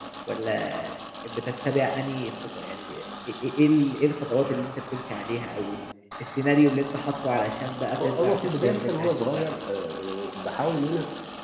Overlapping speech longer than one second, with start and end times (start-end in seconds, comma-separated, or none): 8.0-9.5